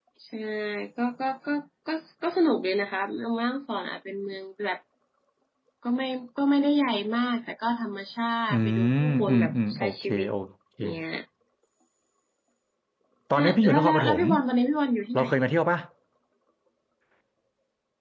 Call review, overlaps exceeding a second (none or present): present